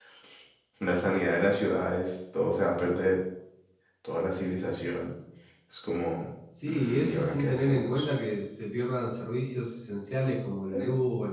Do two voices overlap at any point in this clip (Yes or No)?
Yes